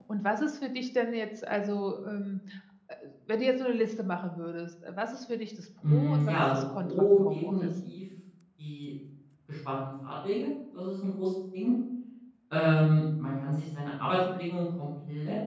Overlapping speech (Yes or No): Yes